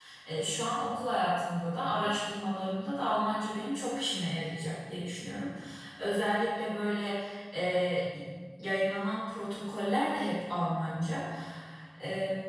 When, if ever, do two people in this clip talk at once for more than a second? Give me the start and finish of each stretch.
none

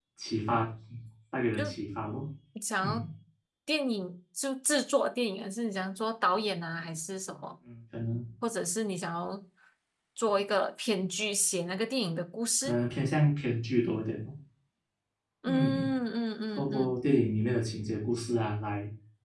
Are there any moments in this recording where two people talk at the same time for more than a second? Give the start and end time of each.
none

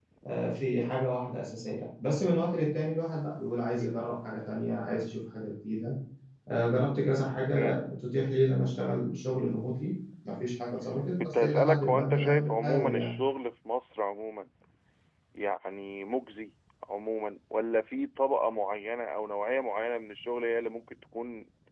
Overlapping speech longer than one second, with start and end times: 11.2-13.1

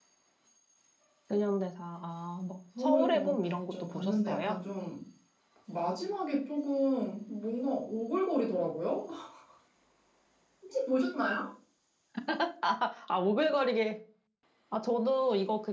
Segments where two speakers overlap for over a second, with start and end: 2.8-4.6

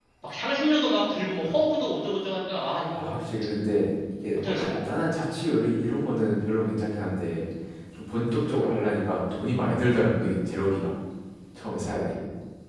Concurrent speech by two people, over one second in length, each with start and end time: none

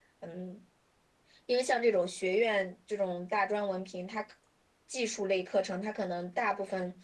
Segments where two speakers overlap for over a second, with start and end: none

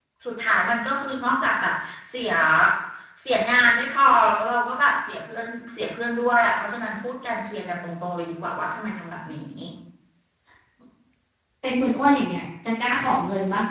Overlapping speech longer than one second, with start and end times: none

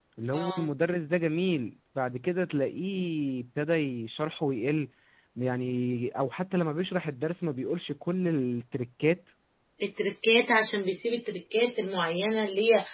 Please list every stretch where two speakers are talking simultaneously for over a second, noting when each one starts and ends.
none

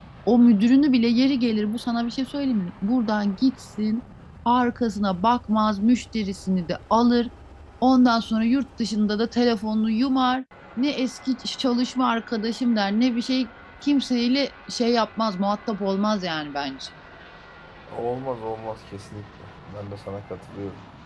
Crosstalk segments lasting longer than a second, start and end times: none

